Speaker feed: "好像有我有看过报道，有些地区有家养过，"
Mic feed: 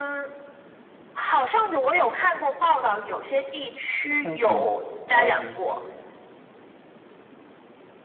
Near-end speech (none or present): present